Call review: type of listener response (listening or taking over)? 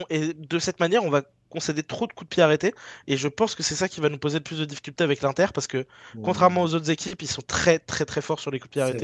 taking over